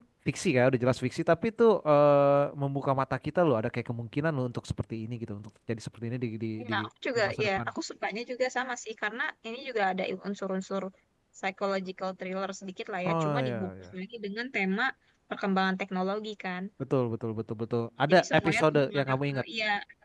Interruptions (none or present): present